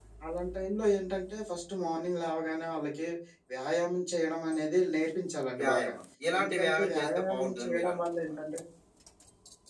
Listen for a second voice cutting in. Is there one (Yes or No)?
Yes